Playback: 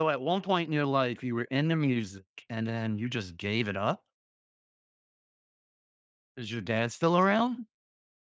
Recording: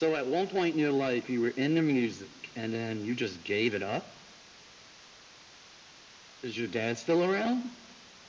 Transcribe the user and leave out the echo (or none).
none